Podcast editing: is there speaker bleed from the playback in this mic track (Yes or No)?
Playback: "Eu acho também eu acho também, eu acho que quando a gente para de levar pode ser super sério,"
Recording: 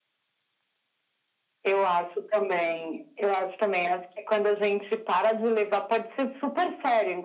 Yes